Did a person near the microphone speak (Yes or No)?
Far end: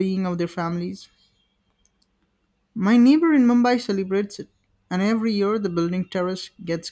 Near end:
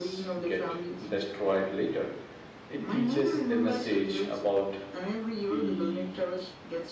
Yes